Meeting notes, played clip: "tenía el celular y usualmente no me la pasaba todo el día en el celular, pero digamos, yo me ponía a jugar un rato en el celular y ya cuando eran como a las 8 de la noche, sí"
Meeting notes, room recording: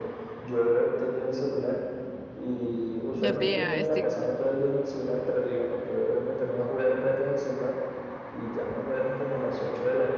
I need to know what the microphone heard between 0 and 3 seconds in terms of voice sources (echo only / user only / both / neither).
echo only